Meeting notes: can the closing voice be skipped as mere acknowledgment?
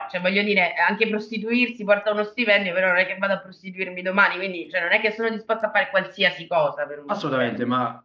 No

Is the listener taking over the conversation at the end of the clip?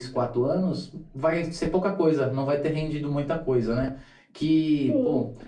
No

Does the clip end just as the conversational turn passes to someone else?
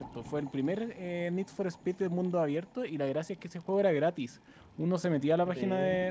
No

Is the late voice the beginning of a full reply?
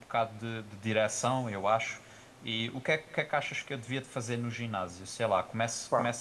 No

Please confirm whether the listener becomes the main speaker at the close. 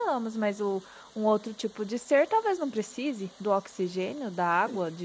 Yes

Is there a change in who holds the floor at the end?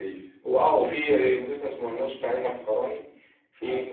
No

